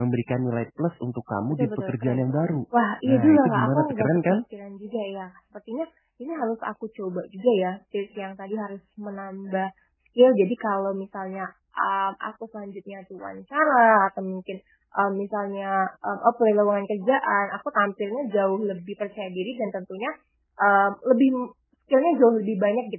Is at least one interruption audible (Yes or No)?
Yes